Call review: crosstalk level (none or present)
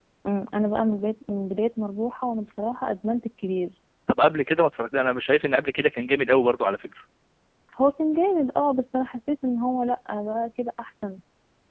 none